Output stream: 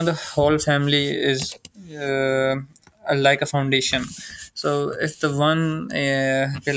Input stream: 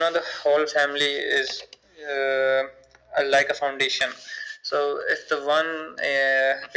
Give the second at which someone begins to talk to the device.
none

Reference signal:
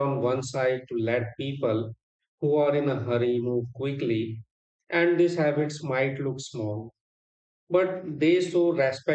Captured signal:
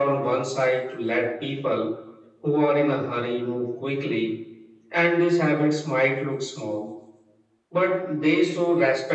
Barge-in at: none

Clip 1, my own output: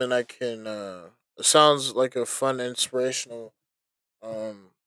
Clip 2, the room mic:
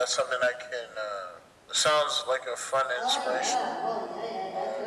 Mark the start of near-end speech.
3.0 s

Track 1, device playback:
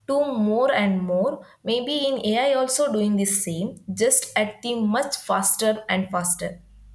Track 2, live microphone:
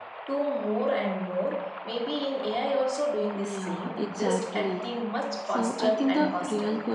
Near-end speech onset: 3.3 s

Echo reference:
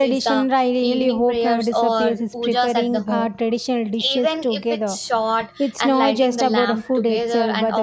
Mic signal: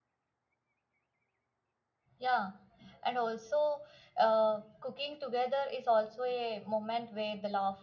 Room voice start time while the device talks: 2.2 s

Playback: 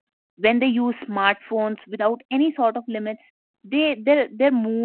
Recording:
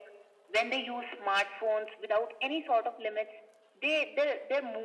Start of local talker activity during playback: none

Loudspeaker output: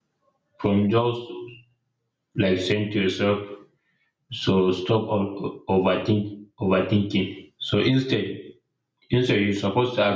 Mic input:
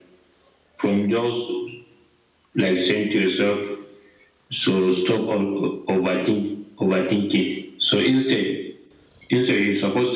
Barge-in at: none

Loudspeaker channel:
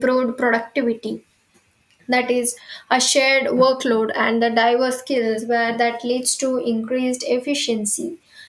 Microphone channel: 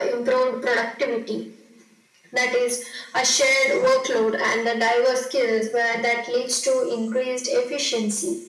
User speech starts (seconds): none

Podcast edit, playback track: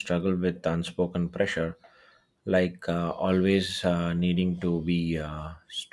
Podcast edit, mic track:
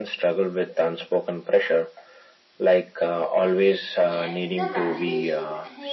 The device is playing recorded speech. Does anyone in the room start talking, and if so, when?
4.1 s

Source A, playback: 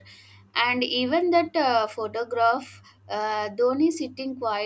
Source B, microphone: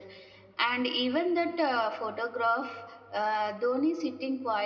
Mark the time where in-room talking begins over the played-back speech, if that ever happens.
none

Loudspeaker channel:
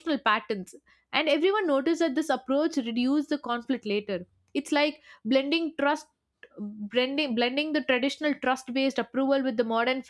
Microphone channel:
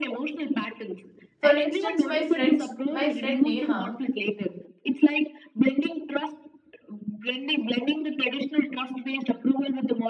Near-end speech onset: 1.4 s

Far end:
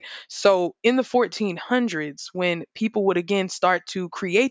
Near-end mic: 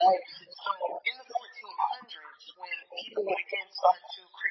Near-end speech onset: none

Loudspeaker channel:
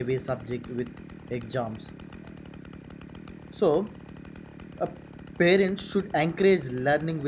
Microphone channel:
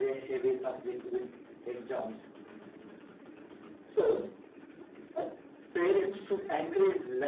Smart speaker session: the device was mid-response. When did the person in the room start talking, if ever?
none

